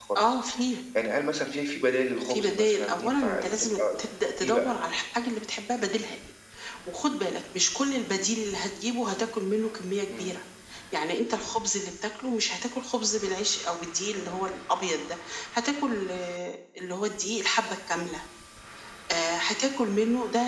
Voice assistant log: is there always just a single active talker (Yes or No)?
No